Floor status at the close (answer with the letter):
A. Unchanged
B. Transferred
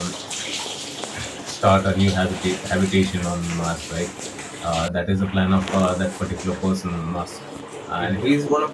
A